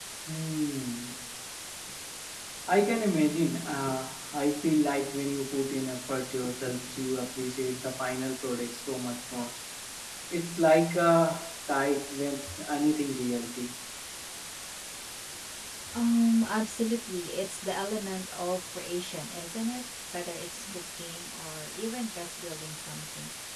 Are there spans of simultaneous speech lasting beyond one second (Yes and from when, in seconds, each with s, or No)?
No